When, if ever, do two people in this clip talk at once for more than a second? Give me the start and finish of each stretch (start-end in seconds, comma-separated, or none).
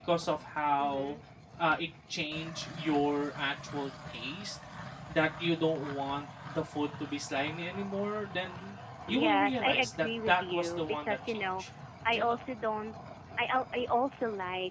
9.1-11.6